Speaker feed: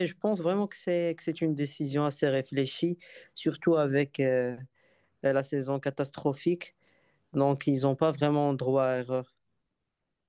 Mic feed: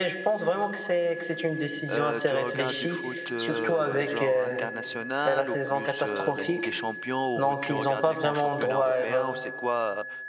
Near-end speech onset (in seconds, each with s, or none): 1.9 s